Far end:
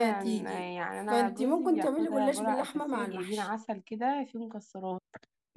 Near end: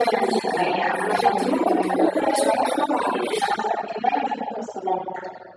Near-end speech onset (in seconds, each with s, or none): 0.6 s